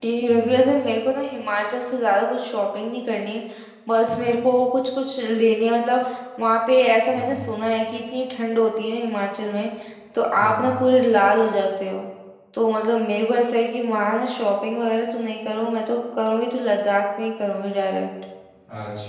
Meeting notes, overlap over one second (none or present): none